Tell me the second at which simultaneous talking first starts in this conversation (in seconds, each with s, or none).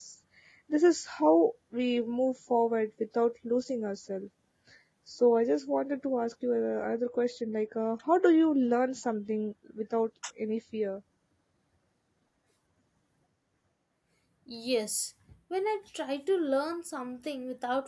none